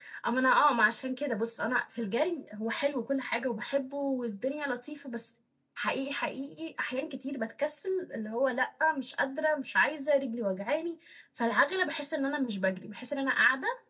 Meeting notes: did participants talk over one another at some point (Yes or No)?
No